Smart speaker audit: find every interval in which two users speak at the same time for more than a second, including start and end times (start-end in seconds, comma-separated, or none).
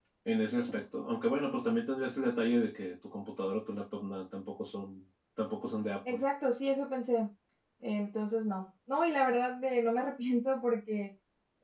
none